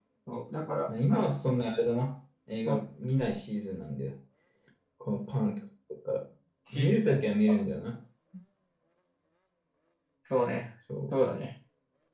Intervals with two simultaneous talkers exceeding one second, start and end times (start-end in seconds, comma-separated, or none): none